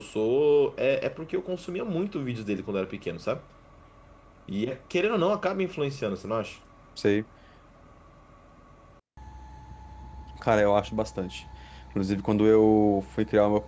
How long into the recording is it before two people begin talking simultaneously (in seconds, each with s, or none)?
none